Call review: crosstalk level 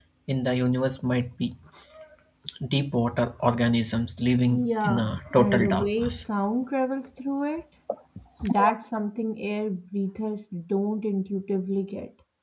present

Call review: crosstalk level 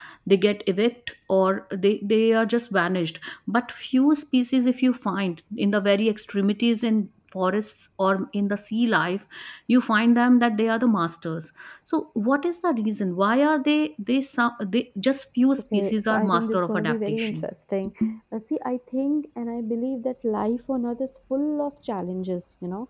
present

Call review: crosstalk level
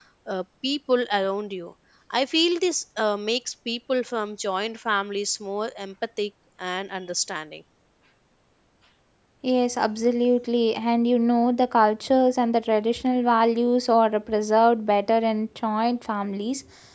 none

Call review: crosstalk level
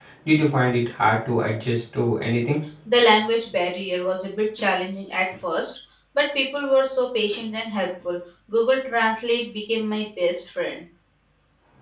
none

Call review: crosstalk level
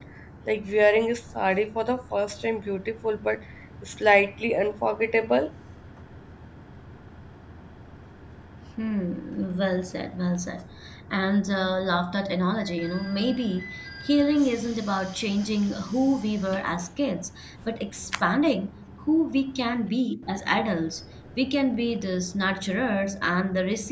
none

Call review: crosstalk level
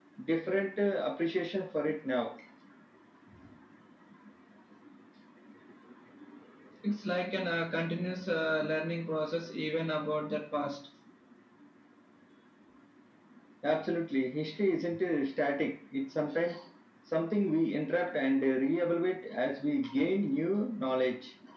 none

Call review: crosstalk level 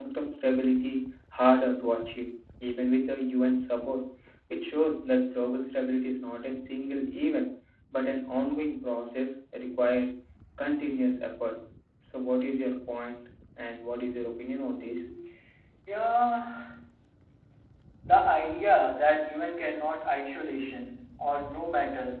none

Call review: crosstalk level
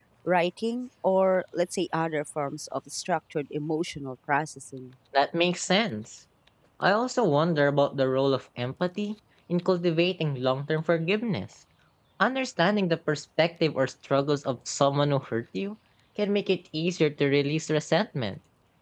none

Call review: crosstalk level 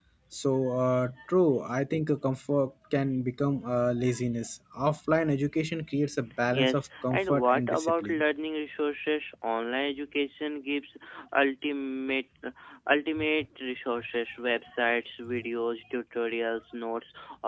present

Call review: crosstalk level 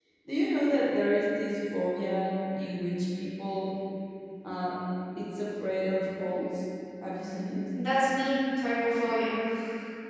none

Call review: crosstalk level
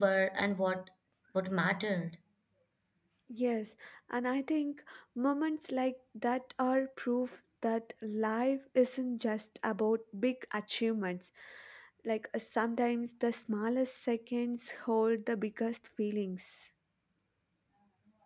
none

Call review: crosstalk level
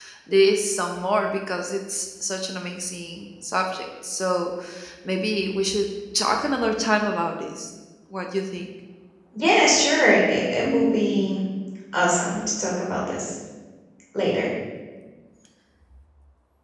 none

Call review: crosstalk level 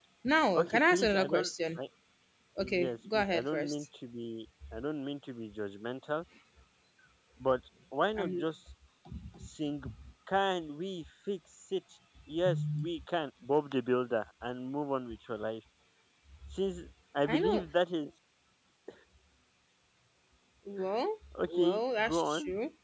present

